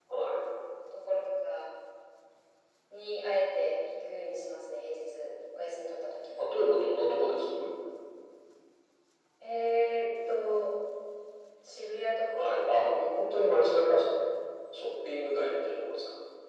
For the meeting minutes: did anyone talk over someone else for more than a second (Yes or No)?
No